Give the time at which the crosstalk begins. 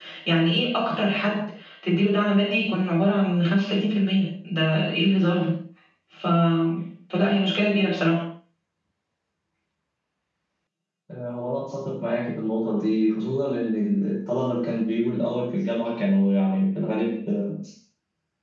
none

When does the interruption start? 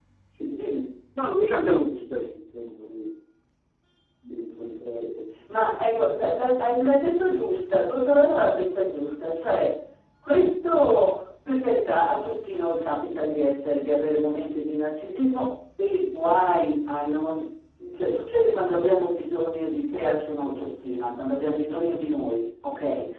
none

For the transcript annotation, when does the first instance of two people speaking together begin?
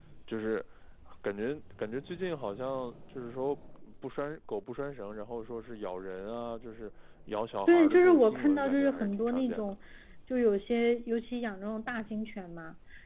7.7 s

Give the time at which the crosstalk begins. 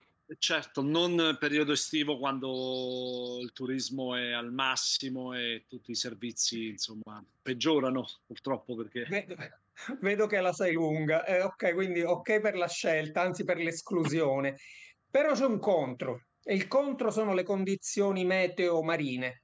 none

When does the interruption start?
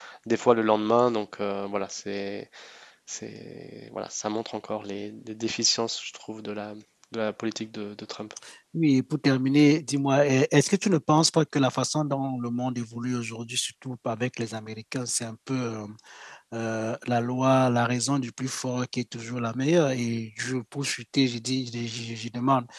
none

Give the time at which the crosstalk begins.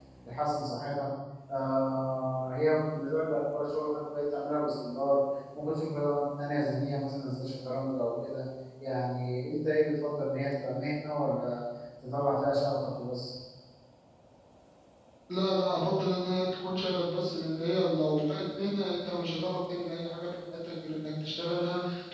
none

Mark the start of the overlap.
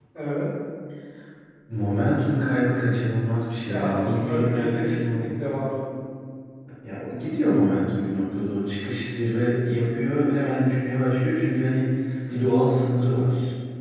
3.7 s

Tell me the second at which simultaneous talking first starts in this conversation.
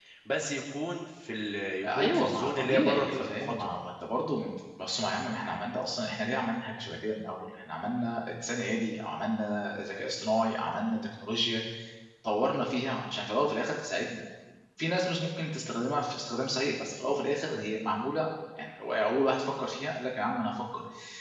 1.8 s

